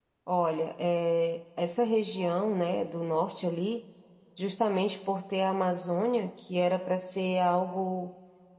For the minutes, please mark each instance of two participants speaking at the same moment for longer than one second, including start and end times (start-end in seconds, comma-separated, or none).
none